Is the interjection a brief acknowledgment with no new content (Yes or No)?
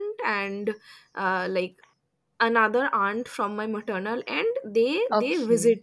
Yes